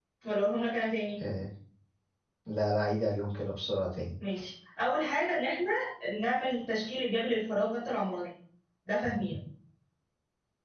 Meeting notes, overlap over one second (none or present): none